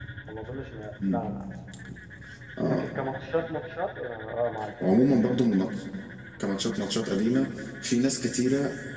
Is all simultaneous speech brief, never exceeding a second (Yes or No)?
Yes